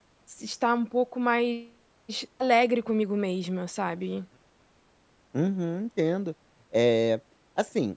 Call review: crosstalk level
none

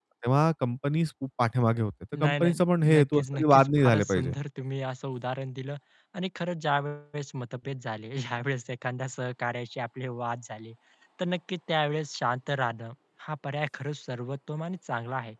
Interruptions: present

